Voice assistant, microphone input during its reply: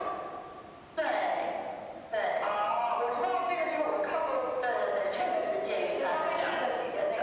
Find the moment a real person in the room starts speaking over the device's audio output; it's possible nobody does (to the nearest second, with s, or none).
none